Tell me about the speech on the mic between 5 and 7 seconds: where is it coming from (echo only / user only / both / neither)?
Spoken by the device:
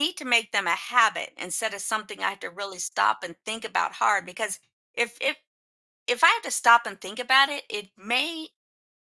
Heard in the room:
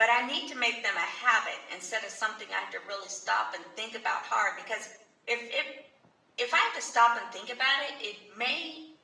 echo only